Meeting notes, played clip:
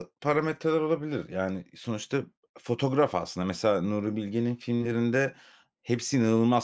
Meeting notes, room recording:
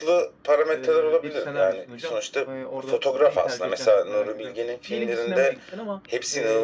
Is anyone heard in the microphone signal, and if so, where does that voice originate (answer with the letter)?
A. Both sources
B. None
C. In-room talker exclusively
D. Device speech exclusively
A